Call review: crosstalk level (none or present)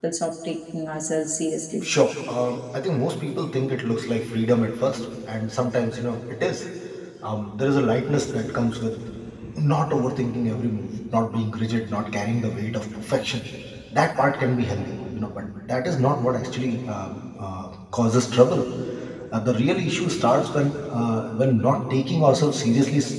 none